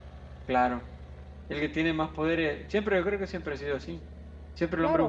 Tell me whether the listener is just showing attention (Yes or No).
Yes